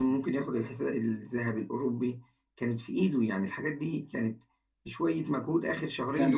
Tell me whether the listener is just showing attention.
No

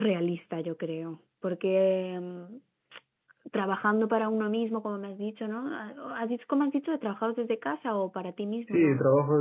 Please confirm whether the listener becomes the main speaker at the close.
Yes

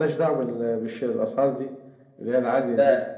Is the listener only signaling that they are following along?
No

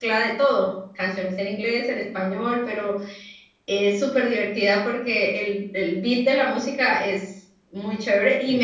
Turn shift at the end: No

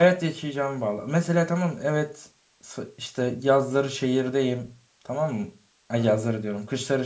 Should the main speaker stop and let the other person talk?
No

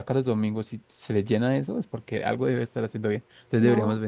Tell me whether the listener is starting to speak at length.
No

